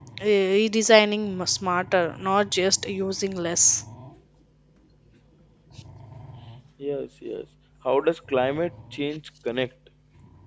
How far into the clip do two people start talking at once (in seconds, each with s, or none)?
none